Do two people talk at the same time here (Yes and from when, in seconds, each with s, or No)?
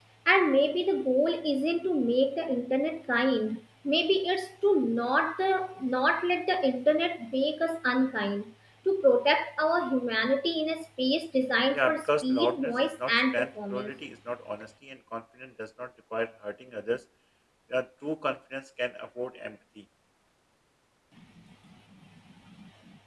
Yes, from 11.7 s